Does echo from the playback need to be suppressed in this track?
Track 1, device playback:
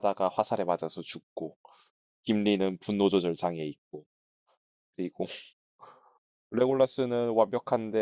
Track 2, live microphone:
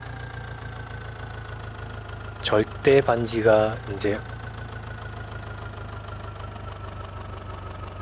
No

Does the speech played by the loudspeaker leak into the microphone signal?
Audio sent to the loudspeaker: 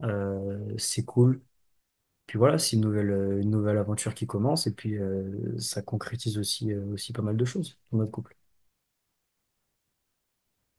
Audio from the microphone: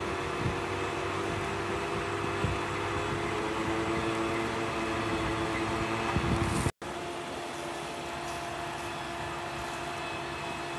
No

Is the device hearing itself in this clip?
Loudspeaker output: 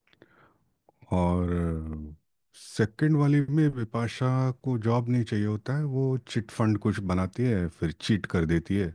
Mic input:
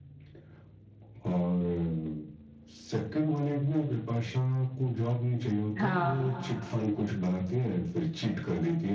Yes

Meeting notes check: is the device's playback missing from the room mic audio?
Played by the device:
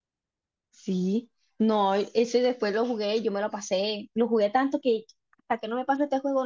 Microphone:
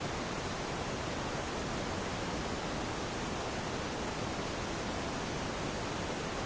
Yes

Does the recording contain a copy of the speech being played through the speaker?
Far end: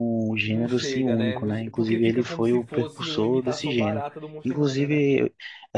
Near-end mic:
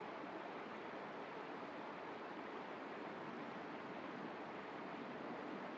No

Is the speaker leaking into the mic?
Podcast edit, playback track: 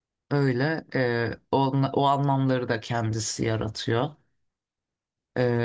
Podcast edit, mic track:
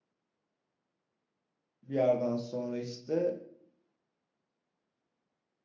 No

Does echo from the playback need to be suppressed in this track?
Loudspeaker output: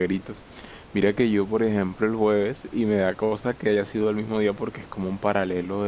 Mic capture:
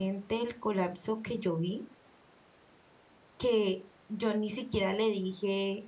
No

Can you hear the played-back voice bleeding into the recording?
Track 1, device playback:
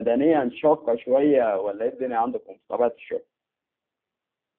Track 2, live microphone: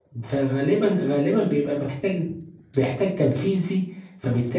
No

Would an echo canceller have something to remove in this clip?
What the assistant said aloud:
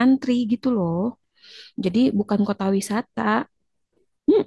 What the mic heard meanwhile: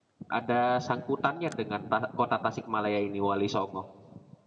No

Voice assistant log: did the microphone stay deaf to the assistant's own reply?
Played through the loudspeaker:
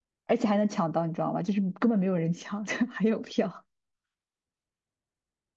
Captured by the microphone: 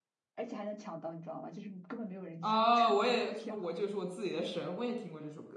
No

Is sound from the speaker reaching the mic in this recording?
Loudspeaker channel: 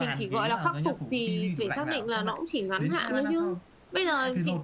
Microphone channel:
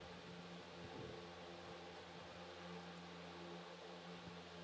No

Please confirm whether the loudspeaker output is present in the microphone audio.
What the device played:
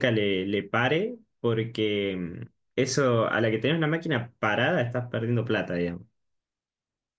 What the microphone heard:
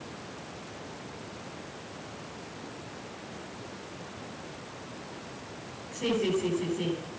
No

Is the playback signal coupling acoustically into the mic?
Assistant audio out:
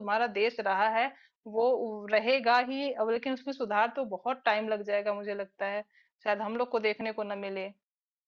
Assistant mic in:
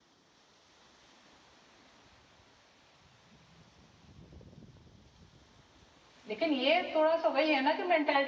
No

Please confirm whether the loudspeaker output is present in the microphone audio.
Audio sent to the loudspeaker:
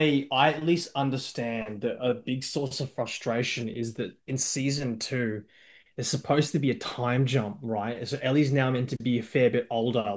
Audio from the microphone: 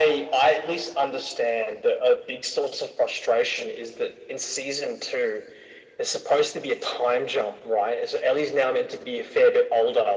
Yes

